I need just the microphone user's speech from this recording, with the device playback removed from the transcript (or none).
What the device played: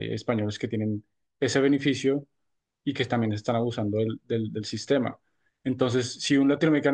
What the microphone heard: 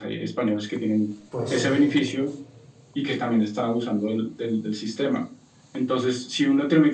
Pues